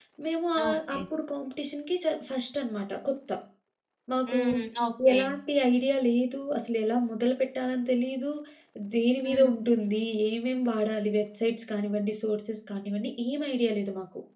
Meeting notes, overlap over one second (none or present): none